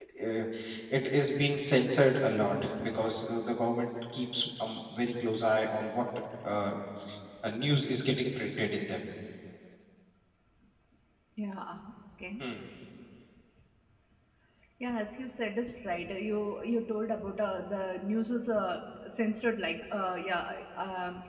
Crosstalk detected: No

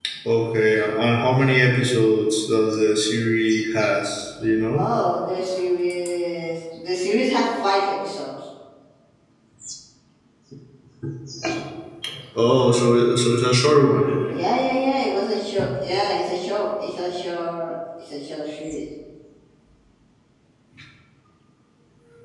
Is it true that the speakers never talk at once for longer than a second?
Yes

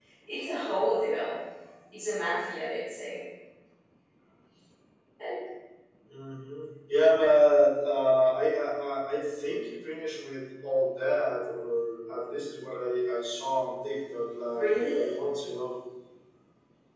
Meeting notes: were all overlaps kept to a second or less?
Yes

